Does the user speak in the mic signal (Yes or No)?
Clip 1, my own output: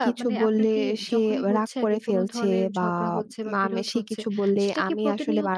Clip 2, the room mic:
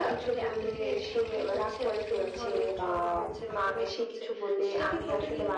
No